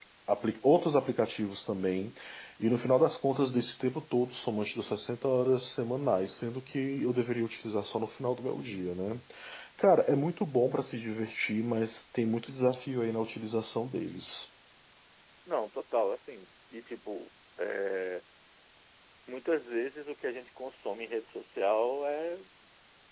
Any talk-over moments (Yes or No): No